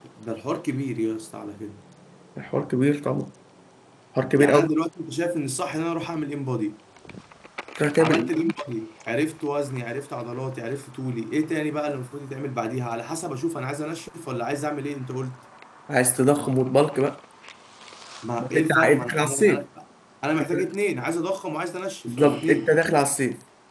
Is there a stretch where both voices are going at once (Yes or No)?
Yes